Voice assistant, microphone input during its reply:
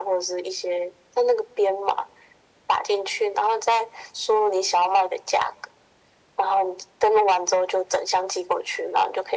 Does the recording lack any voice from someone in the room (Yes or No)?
Yes